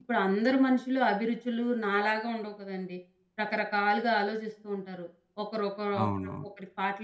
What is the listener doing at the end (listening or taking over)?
listening